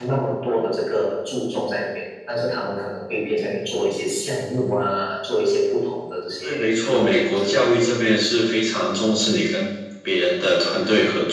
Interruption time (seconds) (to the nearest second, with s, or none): 6 s